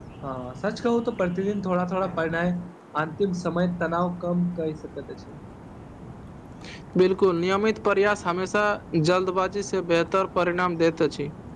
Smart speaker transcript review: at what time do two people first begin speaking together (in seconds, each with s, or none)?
none